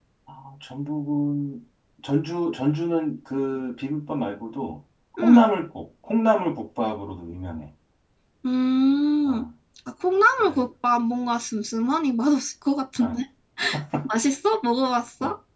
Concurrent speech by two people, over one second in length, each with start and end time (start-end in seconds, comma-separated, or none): none